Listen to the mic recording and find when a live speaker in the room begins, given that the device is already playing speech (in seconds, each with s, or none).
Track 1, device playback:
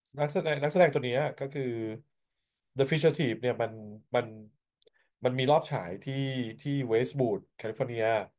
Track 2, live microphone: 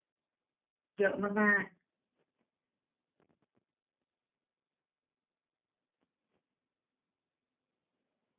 1.0 s